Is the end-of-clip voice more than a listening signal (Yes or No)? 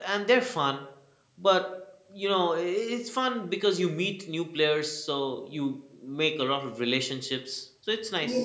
Yes